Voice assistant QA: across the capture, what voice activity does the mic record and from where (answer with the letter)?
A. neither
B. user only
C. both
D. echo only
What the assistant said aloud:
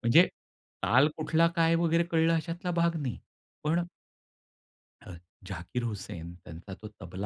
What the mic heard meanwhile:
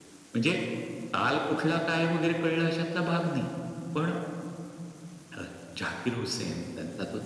D